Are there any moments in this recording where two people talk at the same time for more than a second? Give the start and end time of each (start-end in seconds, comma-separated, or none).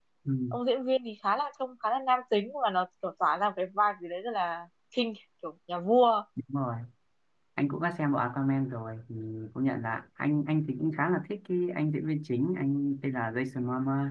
none